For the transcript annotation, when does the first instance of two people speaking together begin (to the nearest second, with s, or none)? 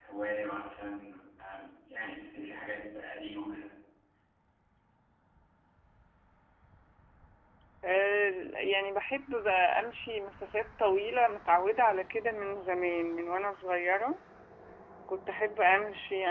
none